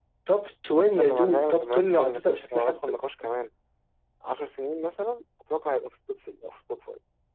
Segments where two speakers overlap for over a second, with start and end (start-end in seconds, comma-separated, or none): 1.0-2.8